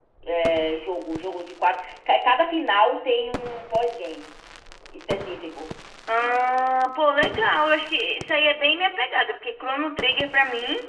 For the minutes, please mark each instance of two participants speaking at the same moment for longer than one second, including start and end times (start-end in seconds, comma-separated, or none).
none